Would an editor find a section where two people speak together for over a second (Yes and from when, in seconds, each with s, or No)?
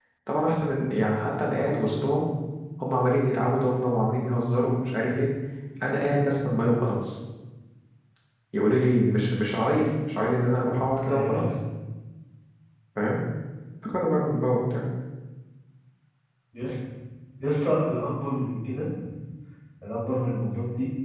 No